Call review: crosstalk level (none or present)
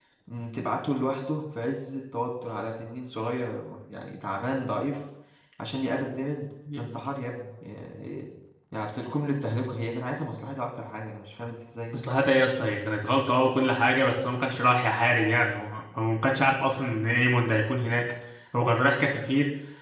none